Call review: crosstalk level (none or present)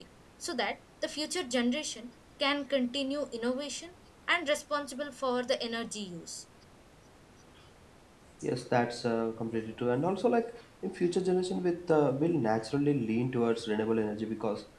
none